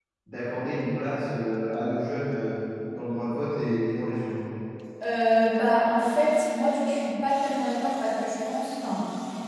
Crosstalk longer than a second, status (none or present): none